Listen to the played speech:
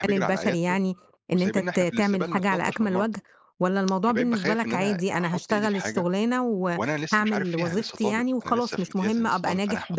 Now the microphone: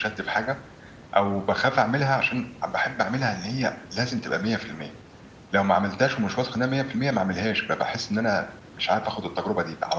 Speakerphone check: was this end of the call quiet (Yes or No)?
No